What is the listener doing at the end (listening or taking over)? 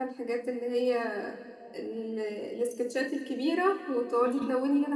listening